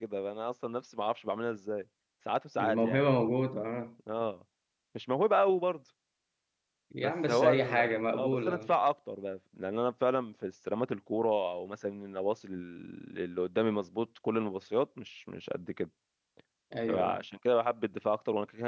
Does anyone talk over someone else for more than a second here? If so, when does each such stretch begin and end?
7.0-8.7

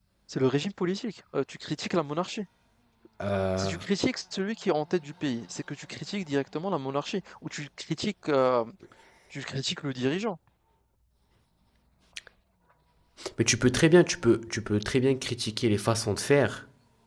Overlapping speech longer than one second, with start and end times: none

